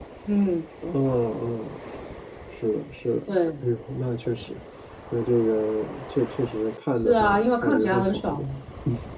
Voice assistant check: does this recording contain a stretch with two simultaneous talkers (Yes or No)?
Yes